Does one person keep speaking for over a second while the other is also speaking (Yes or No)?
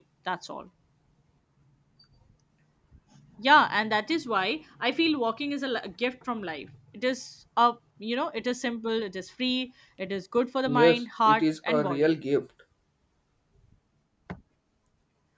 Yes